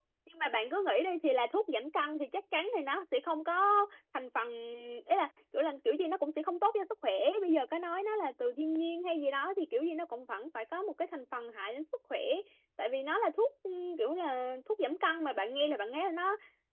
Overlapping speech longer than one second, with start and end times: none

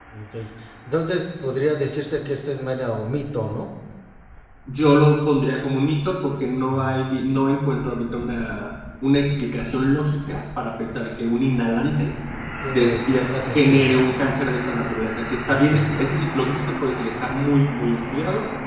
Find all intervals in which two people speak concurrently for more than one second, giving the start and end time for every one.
12.7-14.0

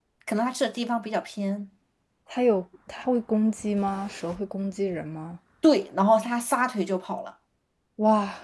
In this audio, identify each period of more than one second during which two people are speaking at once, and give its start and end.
none

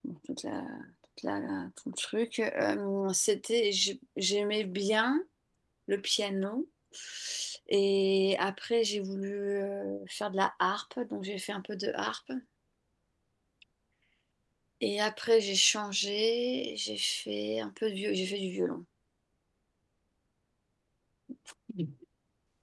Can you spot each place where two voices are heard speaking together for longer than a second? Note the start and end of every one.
none

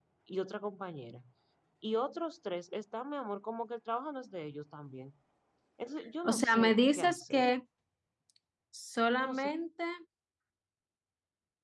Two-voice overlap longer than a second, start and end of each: 6.2-7.5

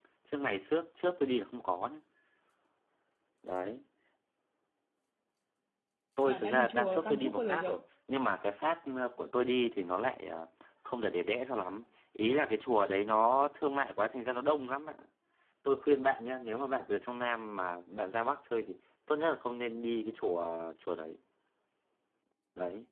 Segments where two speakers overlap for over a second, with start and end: 6.3-7.8

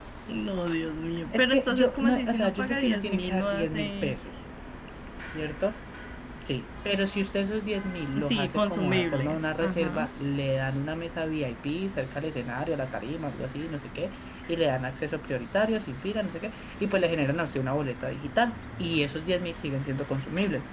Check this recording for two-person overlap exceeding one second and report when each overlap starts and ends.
1.3-4.2, 8.2-10.1

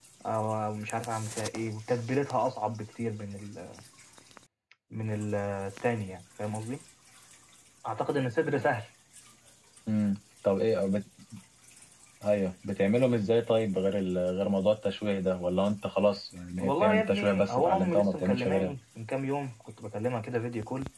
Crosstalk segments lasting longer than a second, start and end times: 16.6-18.7

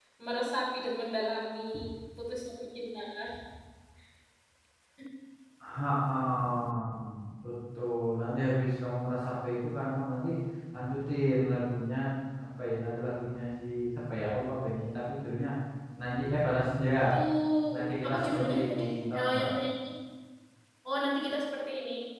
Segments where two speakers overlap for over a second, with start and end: 18.0-19.5

